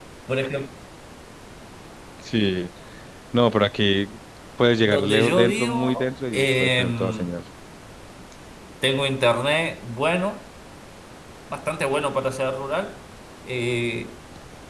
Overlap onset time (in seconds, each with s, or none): 4.9 s